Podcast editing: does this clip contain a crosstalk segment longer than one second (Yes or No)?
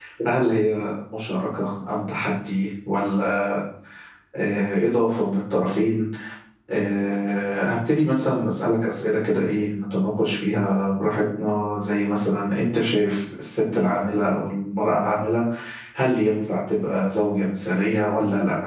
No